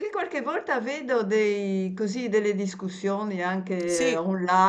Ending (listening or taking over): listening